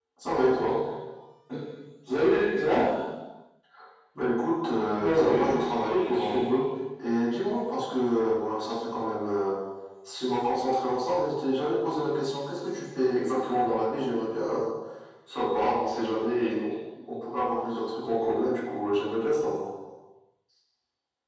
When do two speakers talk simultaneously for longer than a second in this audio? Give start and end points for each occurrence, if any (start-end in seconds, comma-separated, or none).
4.9-6.5